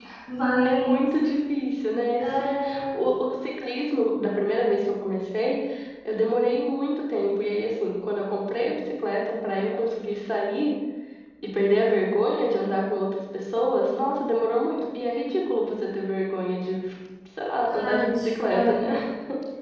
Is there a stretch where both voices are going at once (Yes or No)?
Yes